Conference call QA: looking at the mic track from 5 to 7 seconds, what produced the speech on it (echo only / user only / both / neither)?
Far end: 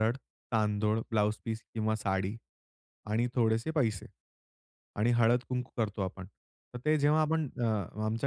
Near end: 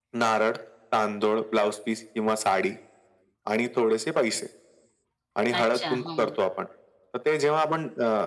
both